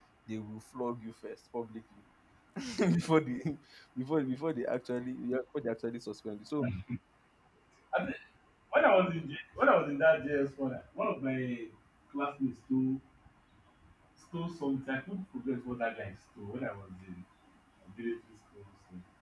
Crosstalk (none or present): none